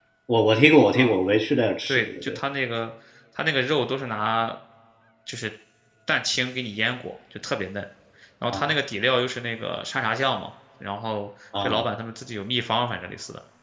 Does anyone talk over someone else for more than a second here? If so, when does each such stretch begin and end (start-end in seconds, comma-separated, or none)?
none